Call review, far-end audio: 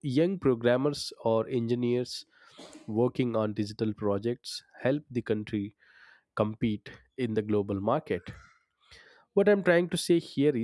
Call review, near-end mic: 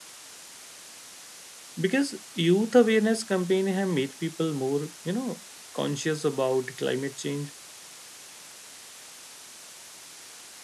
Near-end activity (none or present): present